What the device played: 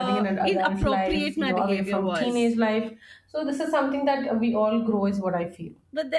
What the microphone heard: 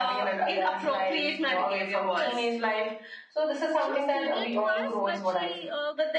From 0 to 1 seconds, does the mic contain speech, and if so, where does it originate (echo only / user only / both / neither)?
echo only